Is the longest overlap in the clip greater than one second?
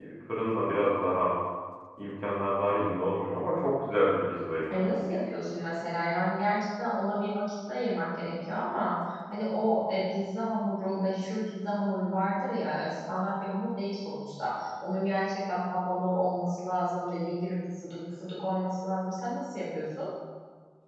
No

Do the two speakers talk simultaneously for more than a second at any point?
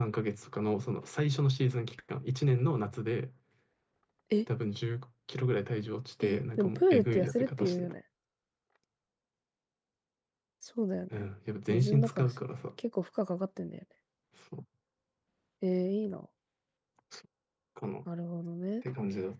Yes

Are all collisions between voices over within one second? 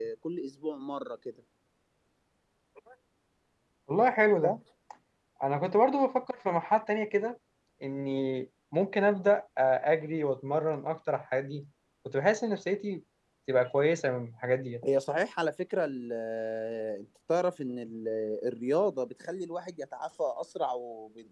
Yes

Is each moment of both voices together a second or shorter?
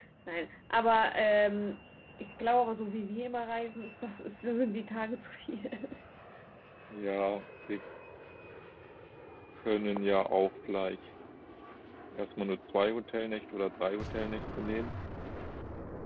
Yes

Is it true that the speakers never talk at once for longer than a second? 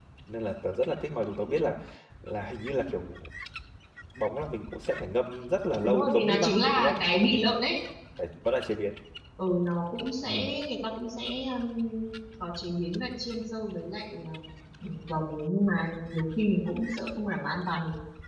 No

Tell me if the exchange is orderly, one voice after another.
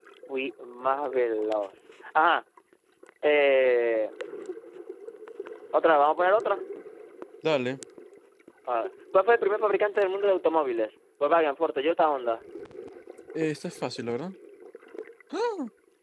Yes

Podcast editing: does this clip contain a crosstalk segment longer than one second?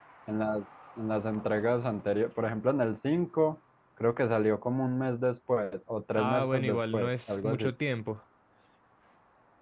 Yes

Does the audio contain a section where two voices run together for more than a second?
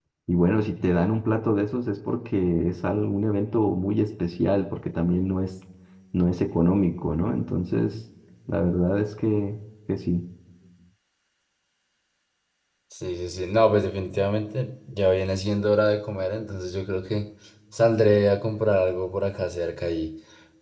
No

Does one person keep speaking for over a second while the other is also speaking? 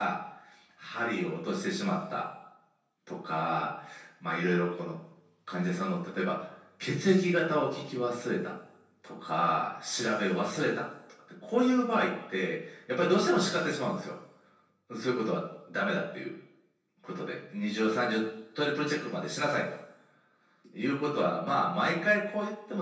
No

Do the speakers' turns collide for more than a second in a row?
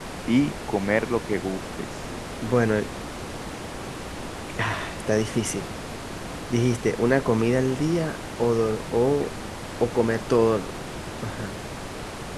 No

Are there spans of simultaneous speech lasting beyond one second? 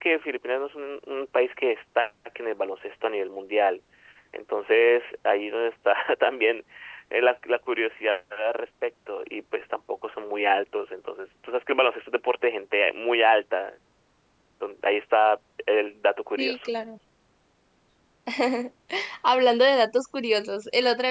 No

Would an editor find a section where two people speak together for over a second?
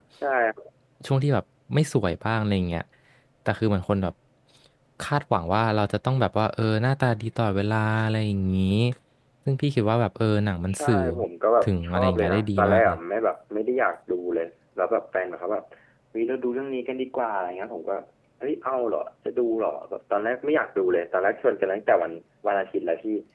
Yes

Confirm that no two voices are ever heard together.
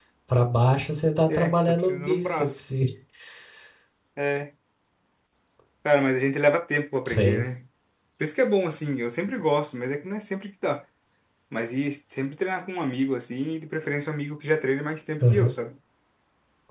No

